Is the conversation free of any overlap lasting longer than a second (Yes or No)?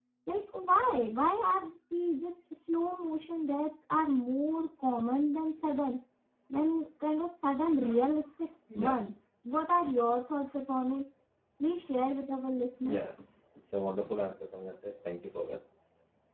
Yes